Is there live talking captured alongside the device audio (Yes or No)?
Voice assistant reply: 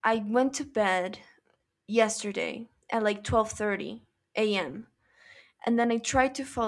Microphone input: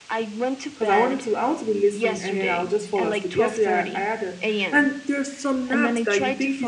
Yes